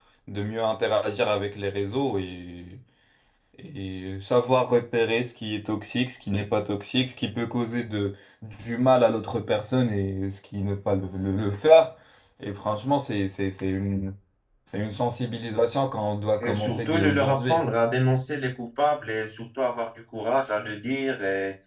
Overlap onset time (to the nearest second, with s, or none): 16 s